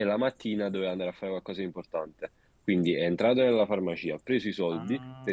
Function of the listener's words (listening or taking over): listening